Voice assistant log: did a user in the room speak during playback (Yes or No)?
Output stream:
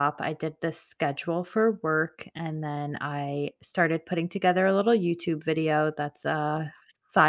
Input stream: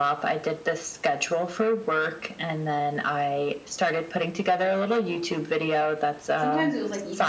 Yes